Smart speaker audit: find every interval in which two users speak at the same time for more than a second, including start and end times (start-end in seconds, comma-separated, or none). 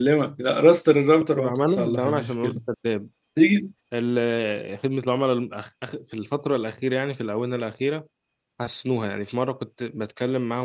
1.4-2.6